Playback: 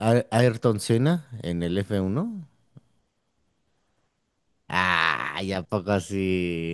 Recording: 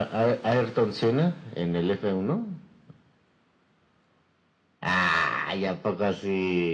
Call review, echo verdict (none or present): present